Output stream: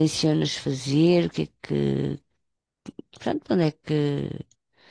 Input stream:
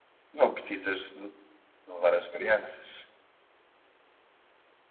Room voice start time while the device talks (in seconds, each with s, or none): 0.3 s